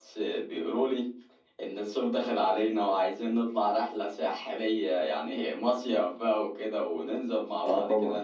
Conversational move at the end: listening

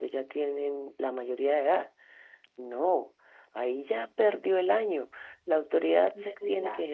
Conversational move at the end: listening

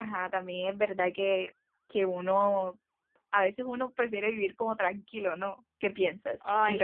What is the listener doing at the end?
taking over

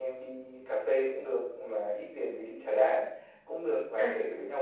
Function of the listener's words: listening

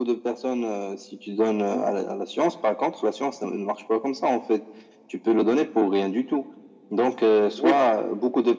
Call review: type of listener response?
listening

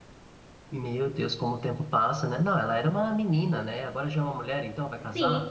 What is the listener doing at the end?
taking over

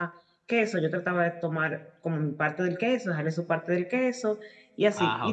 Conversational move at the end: listening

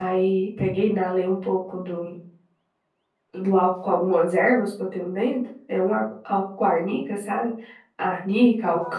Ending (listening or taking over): listening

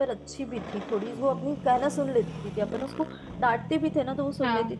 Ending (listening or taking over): listening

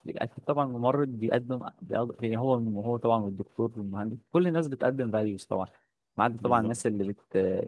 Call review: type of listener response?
listening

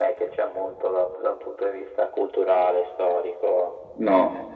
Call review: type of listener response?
taking over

